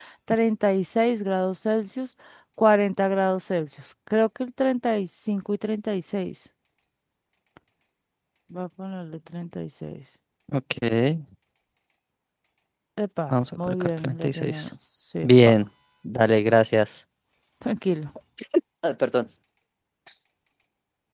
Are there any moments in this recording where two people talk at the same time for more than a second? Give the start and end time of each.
13.3-14.7

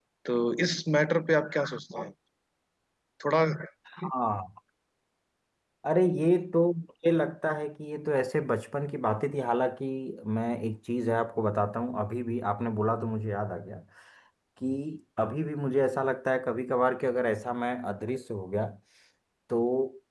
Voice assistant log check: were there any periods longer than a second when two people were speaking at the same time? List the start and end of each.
none

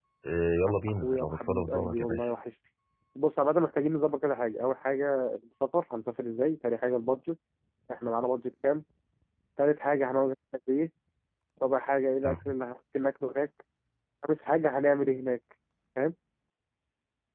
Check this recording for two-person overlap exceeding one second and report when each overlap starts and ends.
0.9-2.3

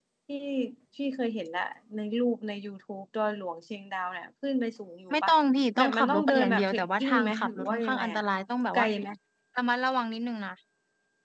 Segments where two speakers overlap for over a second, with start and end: 5.8-8.2

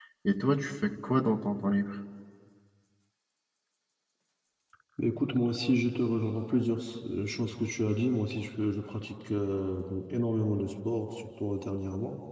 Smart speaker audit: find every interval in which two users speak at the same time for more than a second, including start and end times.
none

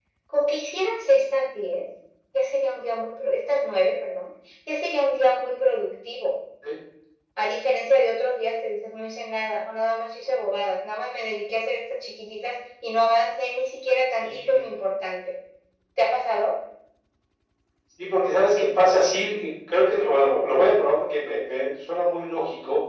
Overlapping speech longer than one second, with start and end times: none

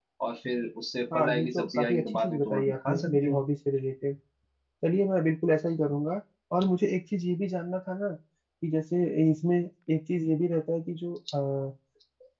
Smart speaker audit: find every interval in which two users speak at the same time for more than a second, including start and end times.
1.1-3.4

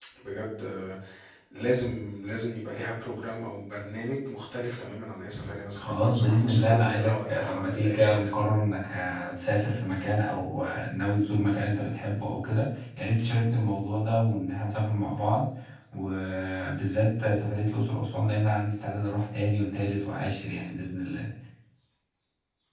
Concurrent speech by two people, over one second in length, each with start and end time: 5.8-8.2

